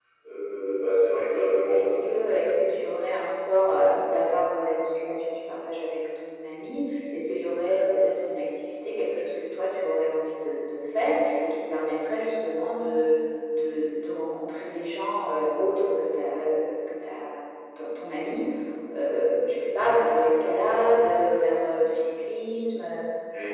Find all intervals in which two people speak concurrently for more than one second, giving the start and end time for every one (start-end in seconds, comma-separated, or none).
1.3-3.0